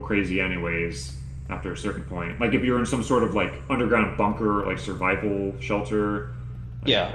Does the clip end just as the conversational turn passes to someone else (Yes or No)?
Yes